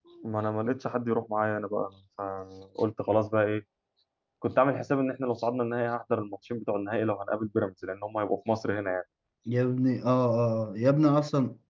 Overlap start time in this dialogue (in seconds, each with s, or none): none